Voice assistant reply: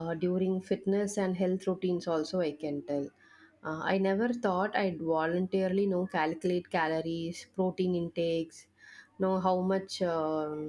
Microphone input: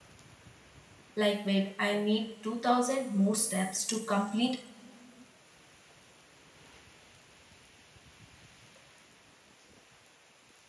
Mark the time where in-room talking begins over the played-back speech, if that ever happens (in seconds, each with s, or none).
1.2 s